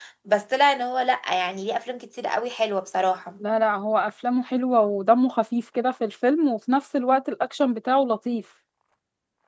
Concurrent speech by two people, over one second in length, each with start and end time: none

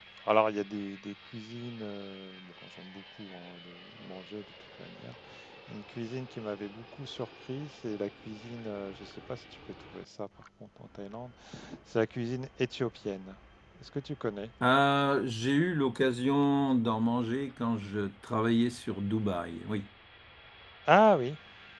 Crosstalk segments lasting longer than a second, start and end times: none

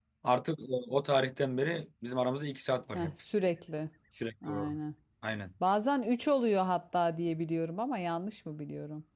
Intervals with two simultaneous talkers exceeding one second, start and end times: none

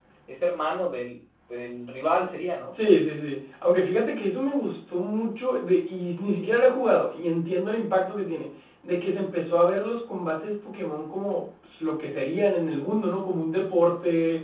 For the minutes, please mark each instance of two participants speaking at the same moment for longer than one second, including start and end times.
none

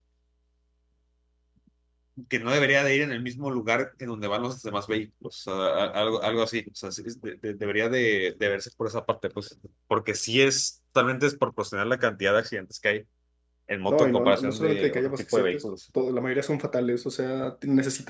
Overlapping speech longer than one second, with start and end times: 13.9-15.6

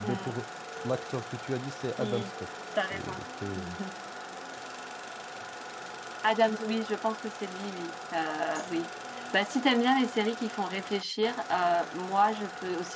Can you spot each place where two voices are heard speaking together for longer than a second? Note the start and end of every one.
none

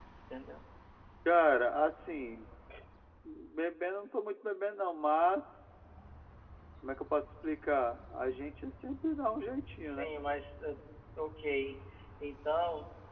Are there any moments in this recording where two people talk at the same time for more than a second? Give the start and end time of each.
none

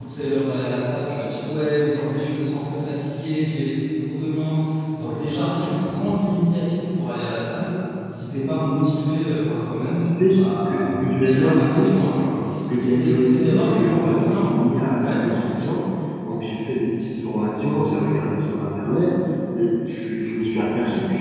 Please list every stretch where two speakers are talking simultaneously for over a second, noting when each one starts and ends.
10.2-11.9, 12.8-14.5

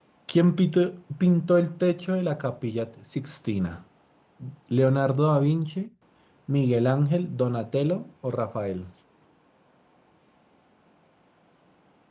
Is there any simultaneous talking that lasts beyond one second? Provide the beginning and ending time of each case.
none

